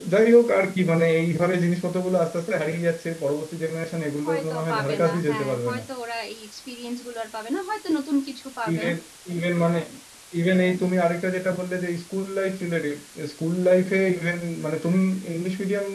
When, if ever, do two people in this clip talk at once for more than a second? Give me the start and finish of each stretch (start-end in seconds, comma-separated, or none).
4.2-5.8